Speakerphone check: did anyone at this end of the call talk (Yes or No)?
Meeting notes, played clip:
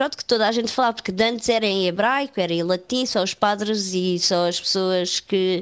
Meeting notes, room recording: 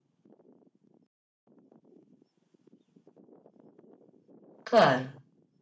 Yes